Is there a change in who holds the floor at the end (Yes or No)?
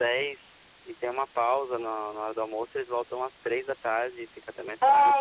Yes